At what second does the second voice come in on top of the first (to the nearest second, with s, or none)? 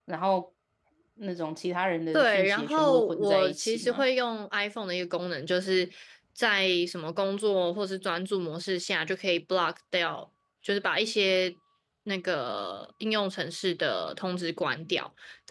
2 s